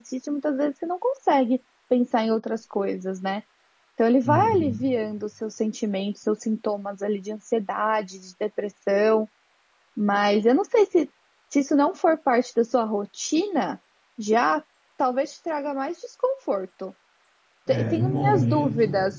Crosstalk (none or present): present